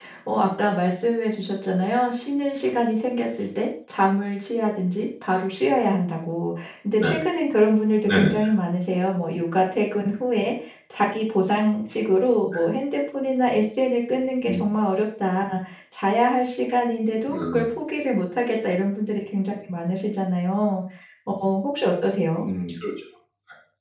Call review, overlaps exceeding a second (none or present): none